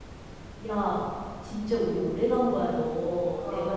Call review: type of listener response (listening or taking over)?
listening